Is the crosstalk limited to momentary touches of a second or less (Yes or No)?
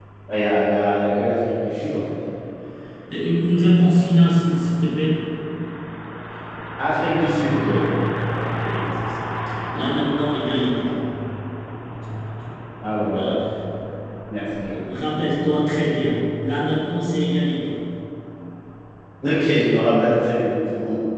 Yes